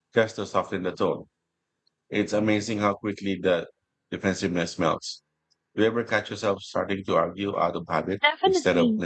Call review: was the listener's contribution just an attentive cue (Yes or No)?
No